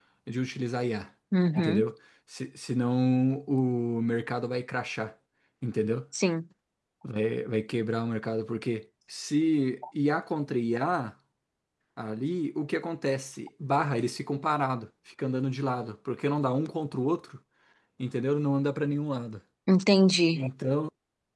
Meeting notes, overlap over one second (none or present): none